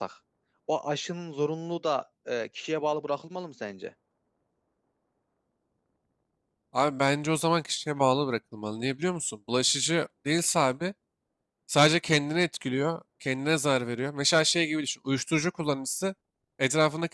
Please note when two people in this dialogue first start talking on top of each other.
none

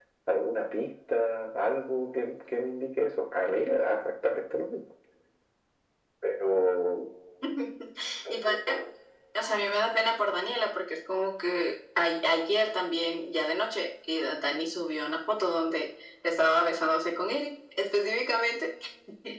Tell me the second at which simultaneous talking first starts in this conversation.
none

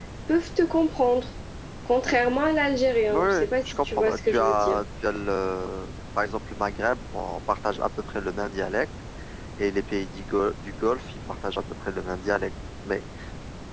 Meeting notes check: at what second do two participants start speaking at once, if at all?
3 s

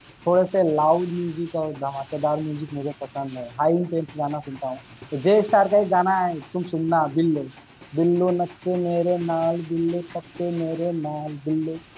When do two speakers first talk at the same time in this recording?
none

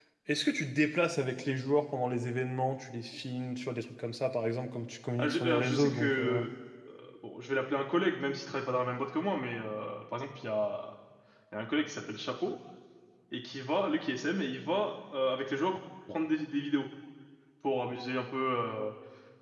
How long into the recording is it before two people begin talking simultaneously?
5 s

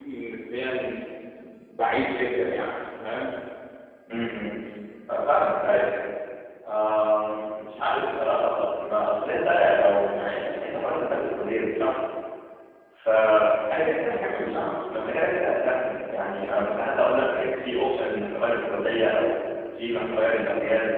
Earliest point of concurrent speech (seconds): none

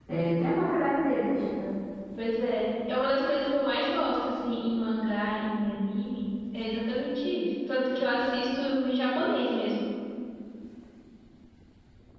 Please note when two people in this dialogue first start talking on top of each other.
none

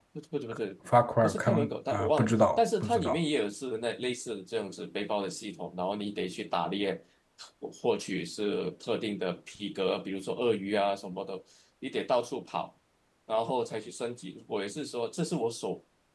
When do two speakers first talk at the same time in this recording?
1 s

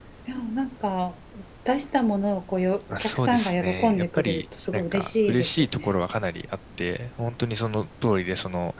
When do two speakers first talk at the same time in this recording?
3 s

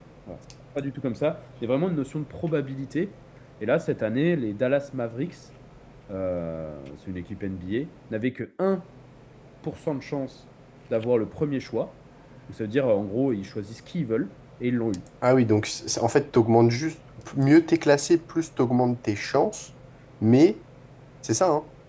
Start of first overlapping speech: none

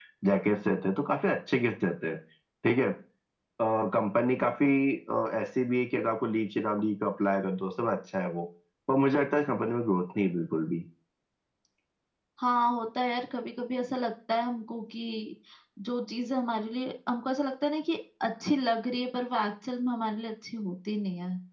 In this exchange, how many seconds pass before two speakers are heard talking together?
none

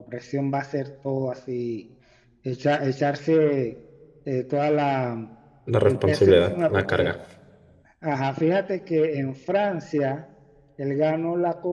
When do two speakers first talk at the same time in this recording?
6 s

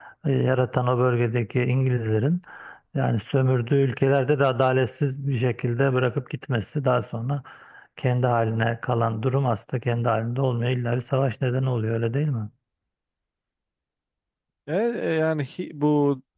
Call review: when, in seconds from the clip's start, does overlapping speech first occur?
none

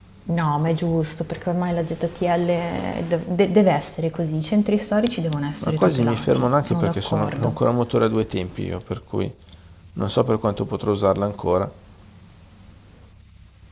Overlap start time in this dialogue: 6 s

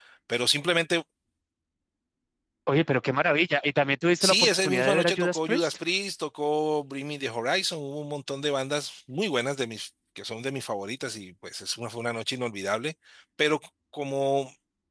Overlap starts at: 4 s

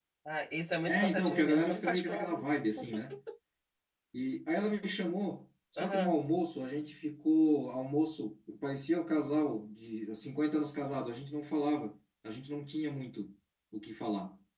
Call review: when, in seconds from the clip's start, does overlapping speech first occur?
1 s

